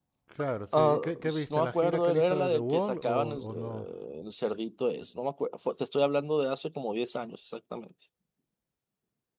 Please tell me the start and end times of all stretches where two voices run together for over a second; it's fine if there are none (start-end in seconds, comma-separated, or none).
0.7-3.9